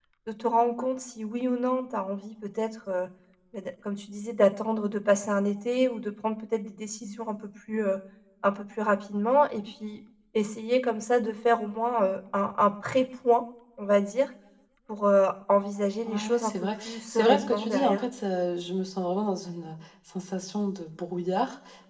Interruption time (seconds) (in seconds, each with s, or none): 16.1 s